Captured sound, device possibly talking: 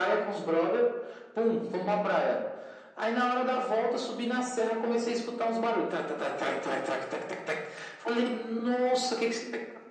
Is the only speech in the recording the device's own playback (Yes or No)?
Yes